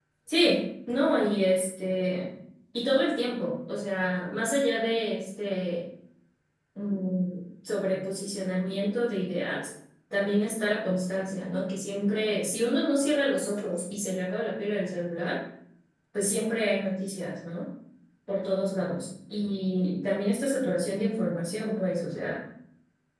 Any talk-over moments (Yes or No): No